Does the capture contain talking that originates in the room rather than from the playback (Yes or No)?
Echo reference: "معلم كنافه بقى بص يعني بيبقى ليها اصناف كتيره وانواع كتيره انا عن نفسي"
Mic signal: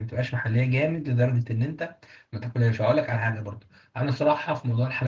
Yes